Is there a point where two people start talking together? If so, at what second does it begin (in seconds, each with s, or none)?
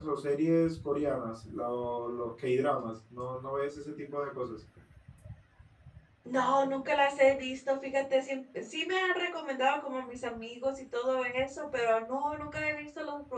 none